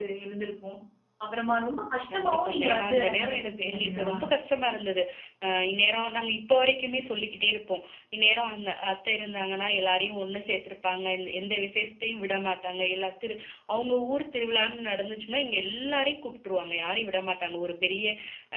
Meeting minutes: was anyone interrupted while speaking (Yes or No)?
Yes